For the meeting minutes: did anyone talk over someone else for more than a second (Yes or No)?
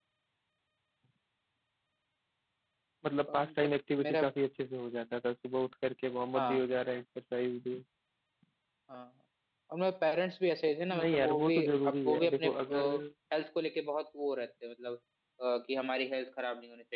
Yes